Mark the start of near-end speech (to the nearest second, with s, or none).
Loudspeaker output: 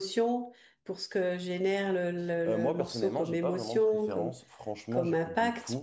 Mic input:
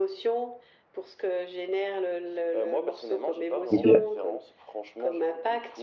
4 s